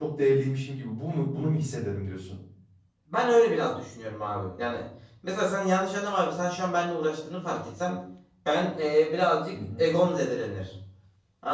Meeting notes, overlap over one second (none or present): none